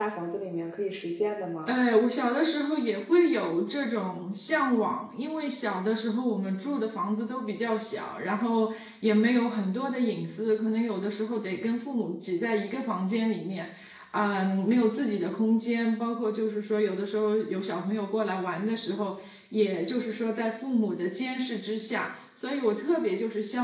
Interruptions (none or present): none